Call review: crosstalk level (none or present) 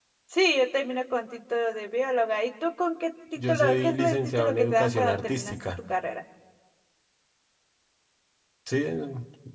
present